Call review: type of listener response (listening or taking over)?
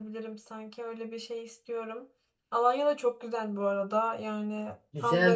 taking over